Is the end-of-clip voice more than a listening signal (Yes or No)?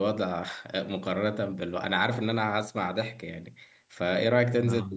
No